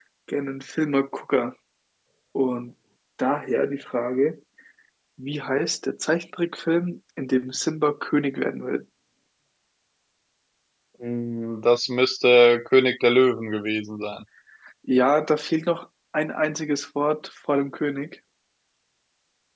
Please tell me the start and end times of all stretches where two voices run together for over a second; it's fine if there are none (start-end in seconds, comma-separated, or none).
none